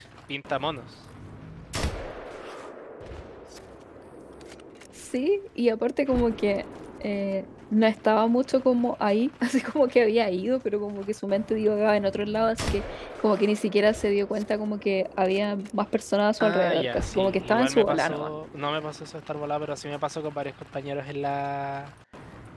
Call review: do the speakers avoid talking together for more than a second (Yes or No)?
No